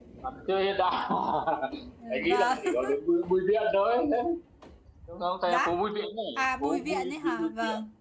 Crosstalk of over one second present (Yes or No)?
Yes